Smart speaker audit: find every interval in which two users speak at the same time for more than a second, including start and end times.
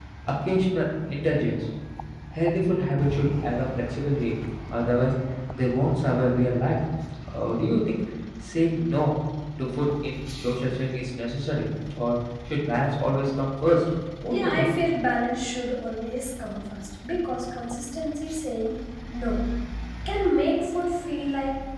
none

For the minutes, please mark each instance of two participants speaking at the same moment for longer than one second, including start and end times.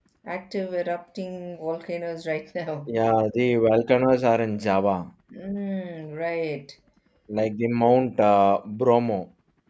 none

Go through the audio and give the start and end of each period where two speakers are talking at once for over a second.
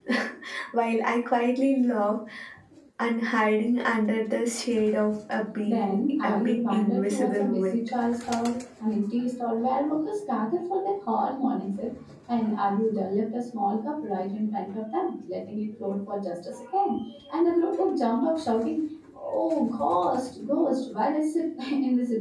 5.6-7.8

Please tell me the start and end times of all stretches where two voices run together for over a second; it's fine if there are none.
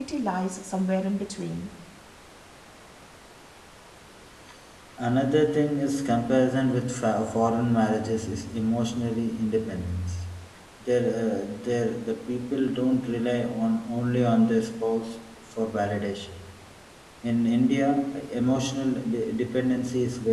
none

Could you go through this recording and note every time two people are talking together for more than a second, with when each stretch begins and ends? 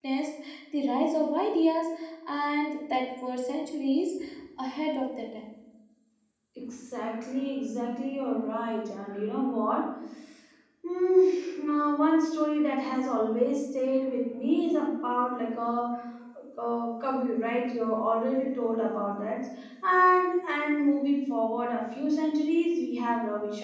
none

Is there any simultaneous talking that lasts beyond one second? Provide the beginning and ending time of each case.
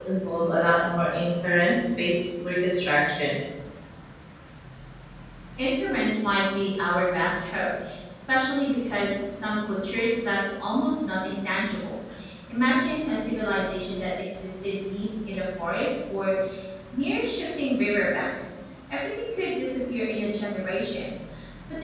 none

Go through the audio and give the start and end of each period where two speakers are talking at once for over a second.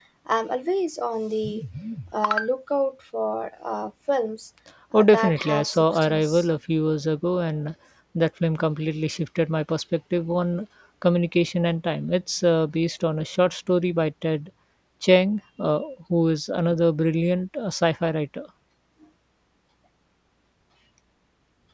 5.0-6.5

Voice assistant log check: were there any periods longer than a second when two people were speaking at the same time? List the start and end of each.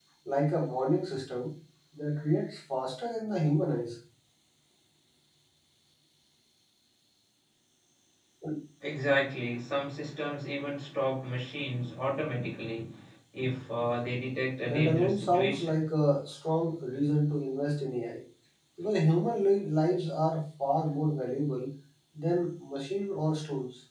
14.6-15.8

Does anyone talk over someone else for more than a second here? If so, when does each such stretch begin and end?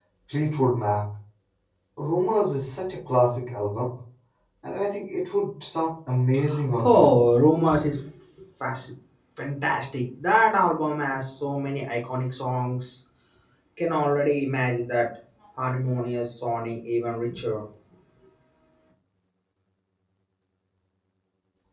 none

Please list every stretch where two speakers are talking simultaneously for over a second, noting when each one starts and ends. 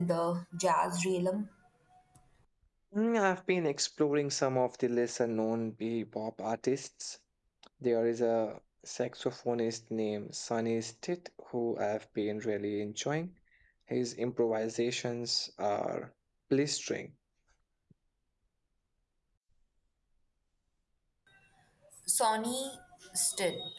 none

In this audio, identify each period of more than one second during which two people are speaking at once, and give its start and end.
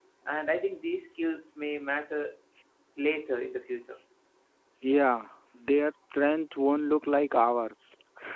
none

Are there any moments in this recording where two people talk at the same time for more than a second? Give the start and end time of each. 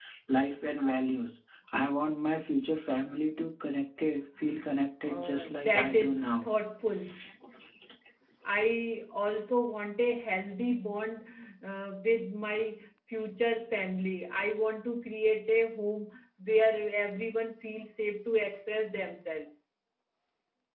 5.0-6.5

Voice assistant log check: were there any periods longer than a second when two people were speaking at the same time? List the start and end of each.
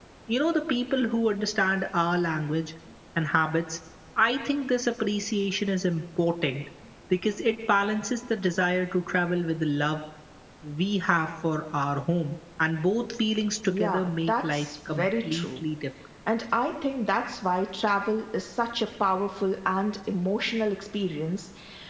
13.7-15.6

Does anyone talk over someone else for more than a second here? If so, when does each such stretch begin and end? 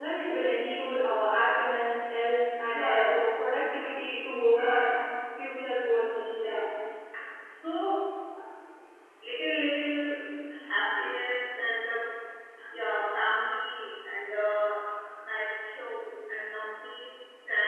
none

